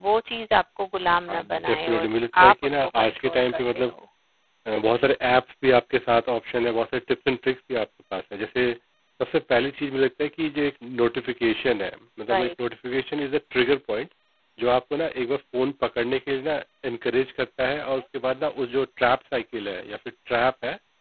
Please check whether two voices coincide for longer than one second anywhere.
Yes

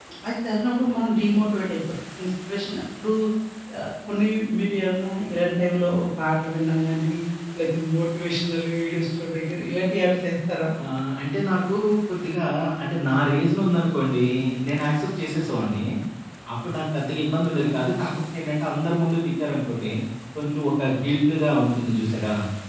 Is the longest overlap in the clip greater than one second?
No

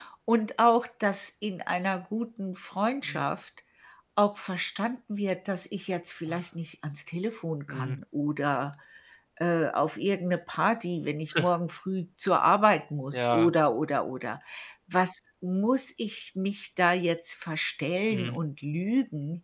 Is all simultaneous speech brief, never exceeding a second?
Yes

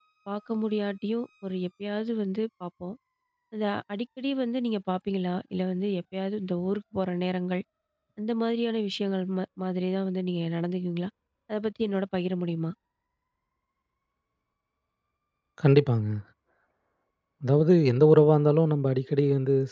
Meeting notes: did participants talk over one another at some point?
No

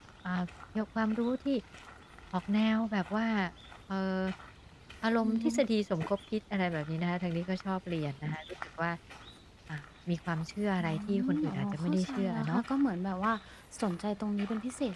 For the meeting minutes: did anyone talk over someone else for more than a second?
Yes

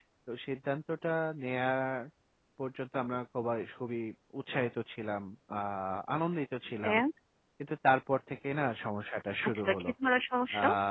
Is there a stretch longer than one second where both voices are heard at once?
No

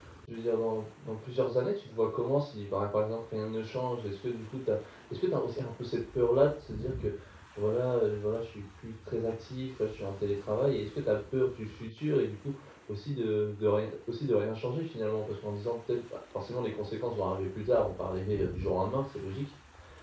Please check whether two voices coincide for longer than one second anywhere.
No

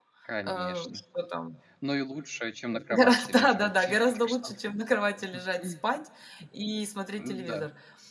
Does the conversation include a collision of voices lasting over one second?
Yes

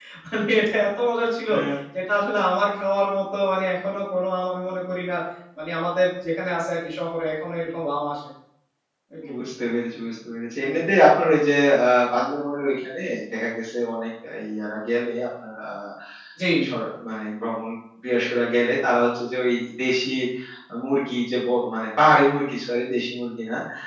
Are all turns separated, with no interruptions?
Yes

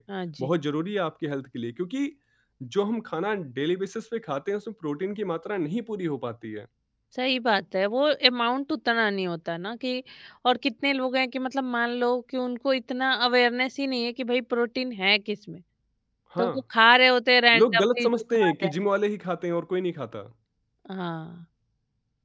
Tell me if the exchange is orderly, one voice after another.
No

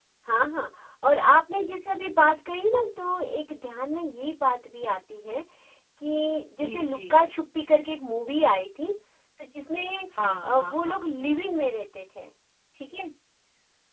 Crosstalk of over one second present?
Yes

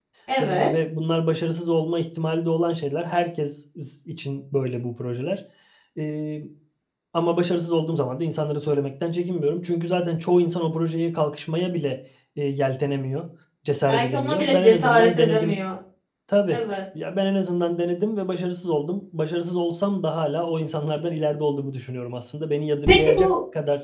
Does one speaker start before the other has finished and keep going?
Yes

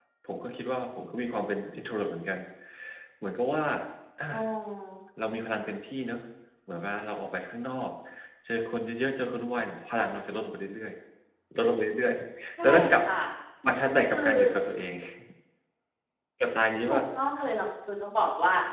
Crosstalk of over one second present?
No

